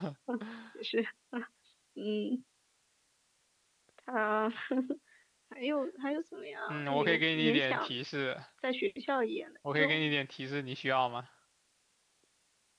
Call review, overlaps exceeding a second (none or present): present